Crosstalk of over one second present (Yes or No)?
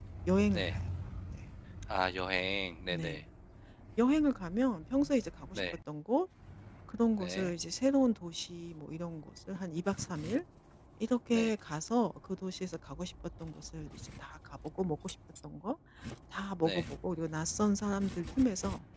No